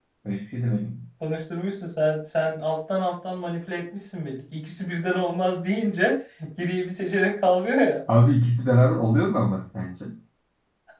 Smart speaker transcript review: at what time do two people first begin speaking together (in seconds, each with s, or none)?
none